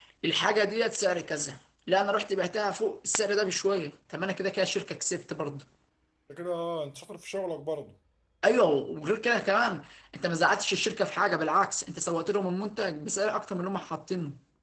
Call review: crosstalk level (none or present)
none